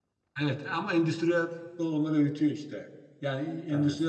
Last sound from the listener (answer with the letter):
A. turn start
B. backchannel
B